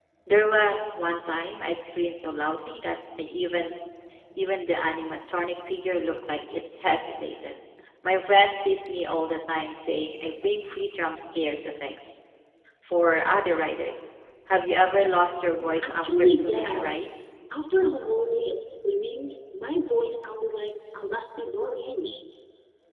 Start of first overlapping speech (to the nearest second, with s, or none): 16 s